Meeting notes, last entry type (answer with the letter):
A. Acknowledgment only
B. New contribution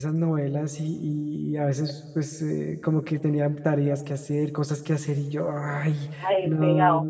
A